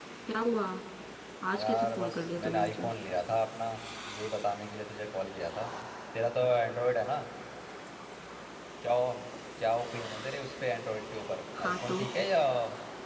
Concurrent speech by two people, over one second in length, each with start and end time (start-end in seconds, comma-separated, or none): 1.6-2.9